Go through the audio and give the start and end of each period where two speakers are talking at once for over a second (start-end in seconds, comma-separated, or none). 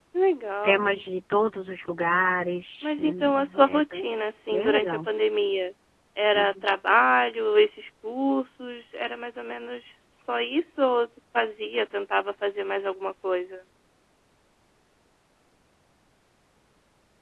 2.8-4.0